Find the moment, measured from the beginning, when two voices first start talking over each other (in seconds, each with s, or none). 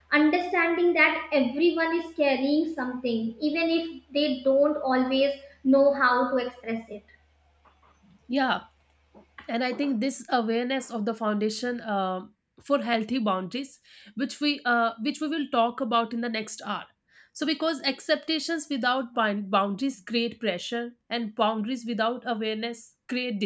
none